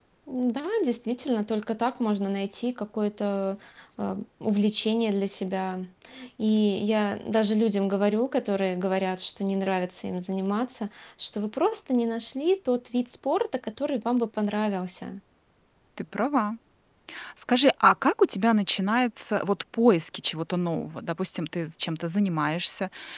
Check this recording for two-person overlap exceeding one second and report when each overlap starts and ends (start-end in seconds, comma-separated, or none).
none